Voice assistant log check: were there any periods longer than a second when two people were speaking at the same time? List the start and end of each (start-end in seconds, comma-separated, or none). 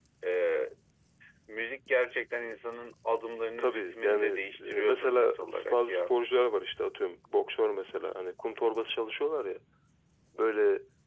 3.6-6.1